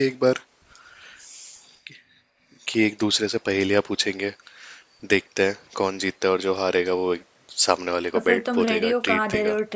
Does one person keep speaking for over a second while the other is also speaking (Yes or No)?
Yes